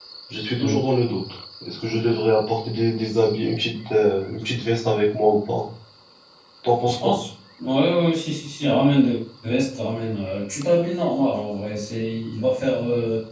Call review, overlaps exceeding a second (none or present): none